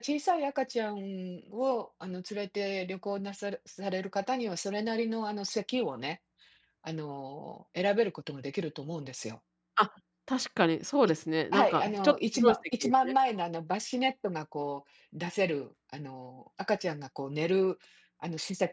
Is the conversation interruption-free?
No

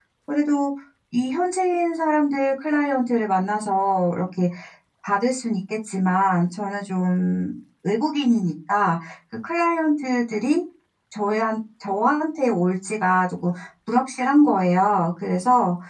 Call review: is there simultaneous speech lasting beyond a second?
No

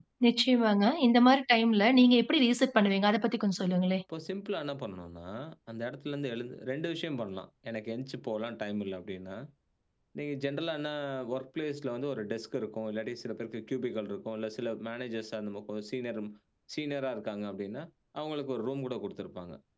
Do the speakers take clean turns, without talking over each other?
Yes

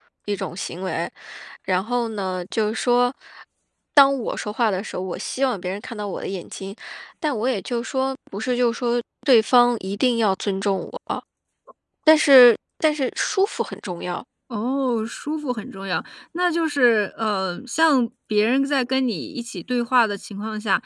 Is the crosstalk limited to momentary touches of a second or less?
Yes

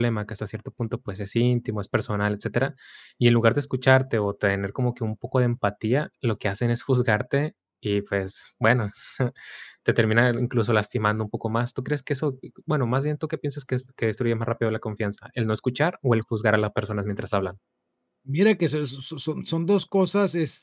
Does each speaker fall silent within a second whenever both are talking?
Yes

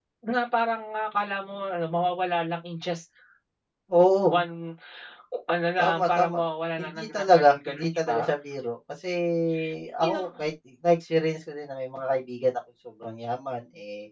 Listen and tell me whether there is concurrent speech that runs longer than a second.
Yes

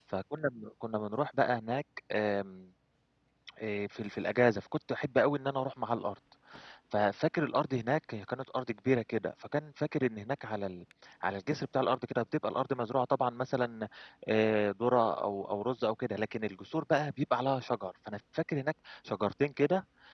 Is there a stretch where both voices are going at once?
No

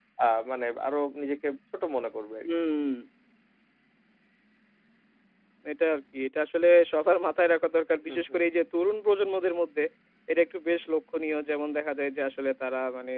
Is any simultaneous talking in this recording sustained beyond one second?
No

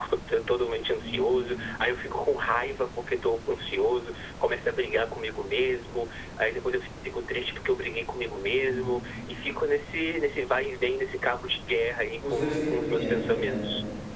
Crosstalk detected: Yes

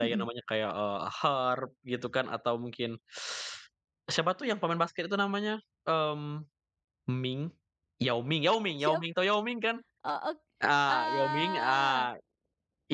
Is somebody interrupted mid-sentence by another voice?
Yes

